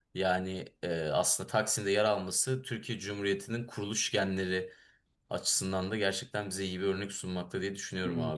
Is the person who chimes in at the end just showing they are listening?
No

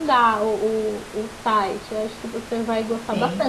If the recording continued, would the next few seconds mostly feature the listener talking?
No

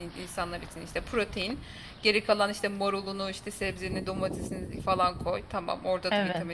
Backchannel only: Yes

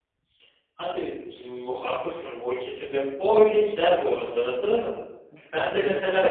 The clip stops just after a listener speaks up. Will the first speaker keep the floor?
Yes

